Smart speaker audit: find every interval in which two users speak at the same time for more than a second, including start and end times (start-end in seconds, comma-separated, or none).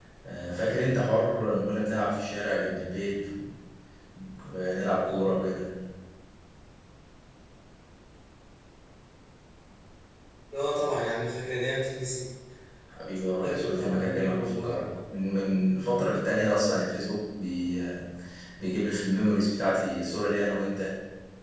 13.4-15.0